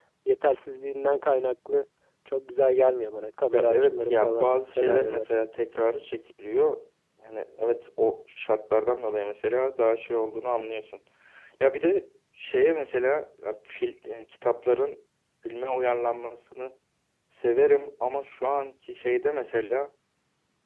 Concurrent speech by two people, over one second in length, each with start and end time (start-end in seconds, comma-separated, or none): 3.5-5.2